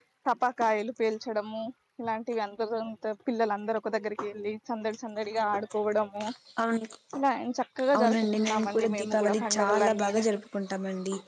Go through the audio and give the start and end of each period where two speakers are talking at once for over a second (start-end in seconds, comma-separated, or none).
8.0-10.2